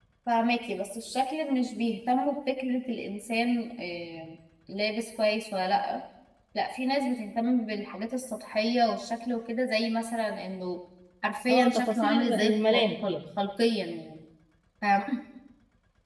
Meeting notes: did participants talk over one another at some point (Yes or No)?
Yes